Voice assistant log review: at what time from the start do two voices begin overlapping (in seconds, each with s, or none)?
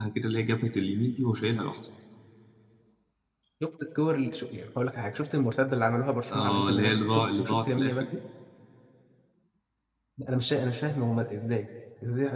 6.3 s